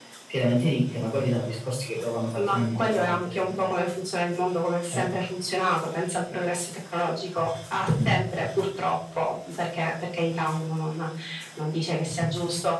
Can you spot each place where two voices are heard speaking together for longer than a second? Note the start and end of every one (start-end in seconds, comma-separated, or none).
2.4-3.7